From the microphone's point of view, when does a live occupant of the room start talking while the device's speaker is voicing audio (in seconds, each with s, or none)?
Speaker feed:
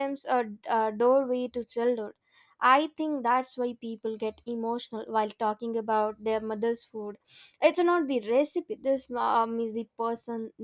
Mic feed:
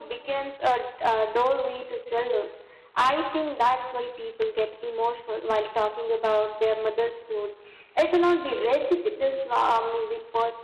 none